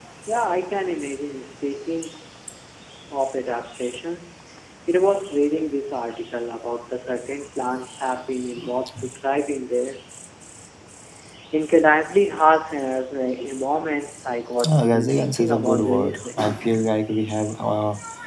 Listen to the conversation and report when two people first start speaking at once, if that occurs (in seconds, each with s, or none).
14.6 s